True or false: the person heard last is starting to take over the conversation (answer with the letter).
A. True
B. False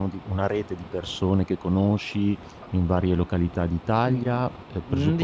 A